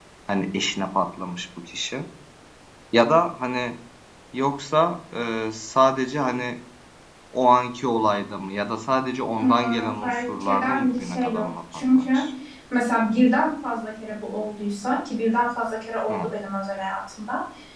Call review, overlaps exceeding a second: present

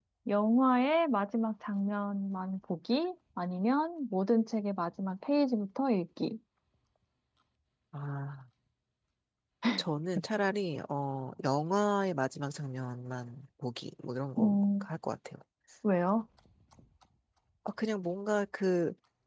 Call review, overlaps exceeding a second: none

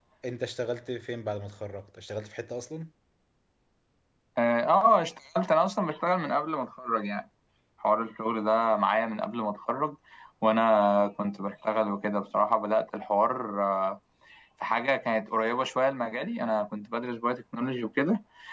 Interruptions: none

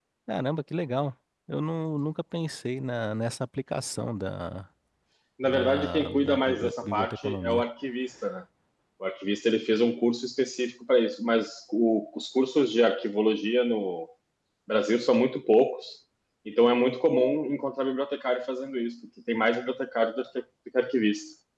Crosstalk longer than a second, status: present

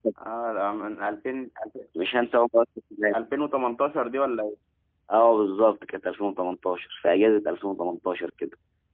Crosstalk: none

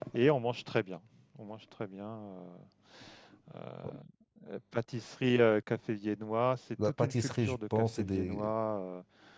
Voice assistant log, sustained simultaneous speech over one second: present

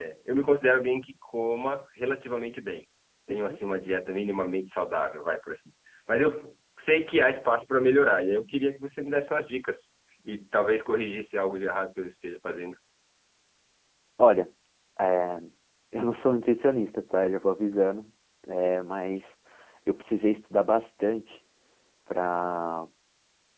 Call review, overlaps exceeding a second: none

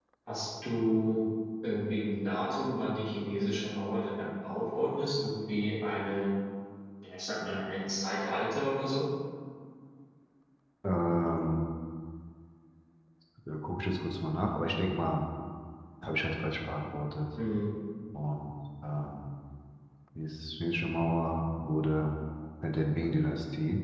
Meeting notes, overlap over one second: none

